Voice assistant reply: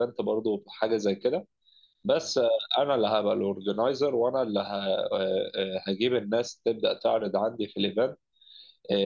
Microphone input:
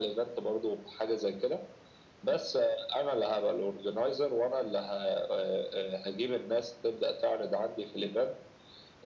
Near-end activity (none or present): none